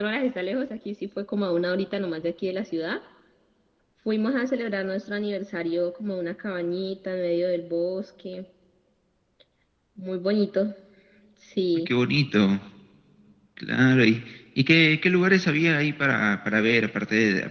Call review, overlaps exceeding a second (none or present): none